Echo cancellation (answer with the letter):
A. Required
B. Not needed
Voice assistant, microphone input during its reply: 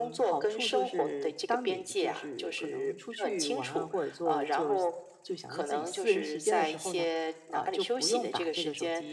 A